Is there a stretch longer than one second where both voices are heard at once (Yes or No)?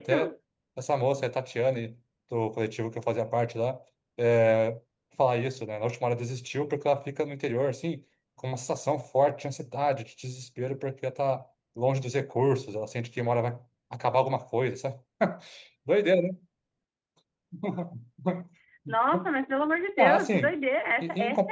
No